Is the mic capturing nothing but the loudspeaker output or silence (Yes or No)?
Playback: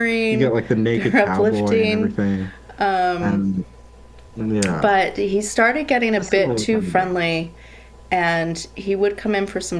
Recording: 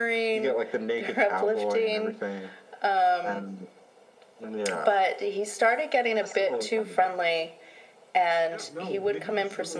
No